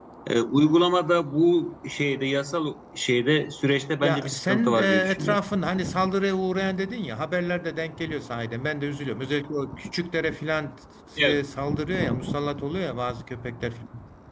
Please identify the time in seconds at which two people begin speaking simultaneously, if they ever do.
4 s

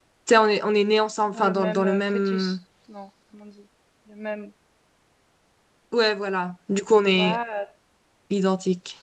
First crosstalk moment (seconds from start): 1 s

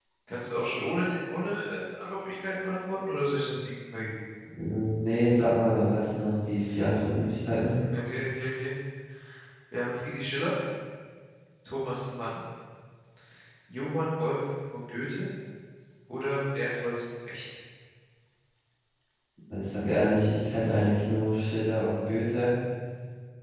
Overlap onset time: none

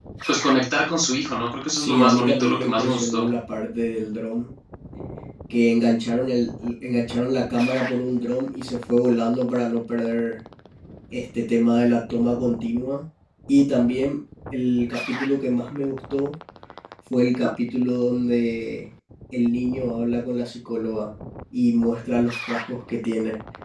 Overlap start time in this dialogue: 2 s

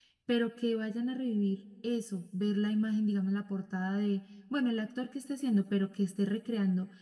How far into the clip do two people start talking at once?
none

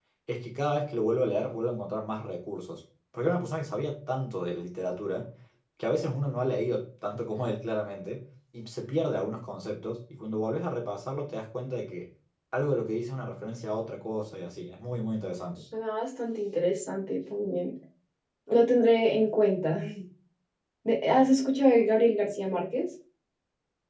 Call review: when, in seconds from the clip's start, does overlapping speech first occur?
none

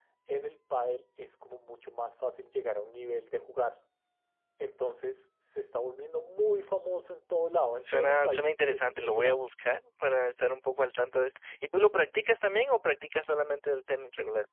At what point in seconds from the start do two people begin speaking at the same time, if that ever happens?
8 s

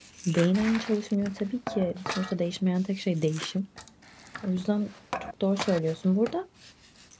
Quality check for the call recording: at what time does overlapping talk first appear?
none

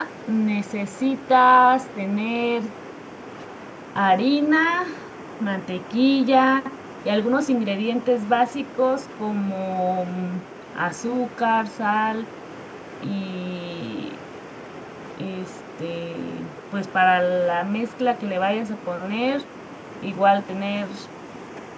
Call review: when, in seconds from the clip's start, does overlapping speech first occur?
none

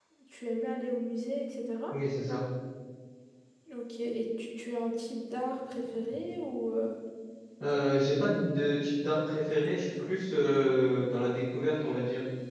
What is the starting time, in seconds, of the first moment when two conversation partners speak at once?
none

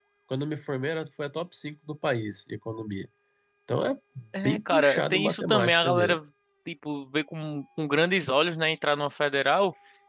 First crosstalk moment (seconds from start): 4 s

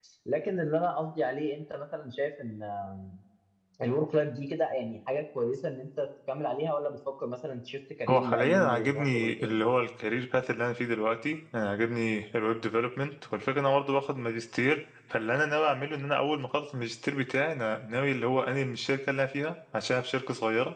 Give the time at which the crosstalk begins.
8 s

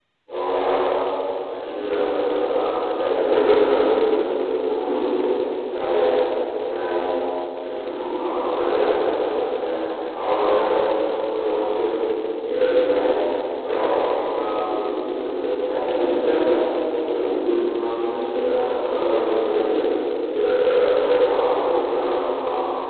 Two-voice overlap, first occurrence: none

